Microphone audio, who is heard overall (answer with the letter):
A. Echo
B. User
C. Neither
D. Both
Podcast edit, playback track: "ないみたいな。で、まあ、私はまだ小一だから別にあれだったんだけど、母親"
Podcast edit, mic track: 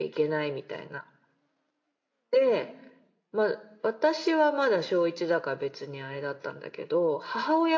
A